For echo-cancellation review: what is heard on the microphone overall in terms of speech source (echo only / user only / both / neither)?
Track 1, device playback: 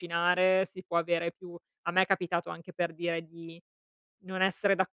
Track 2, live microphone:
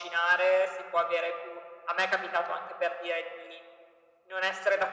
echo only